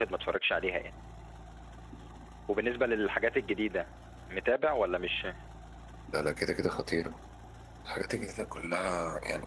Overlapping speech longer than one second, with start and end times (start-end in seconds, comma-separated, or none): none